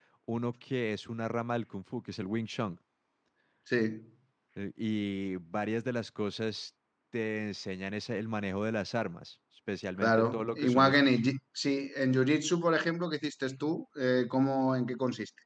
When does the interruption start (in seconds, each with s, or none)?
10.0 s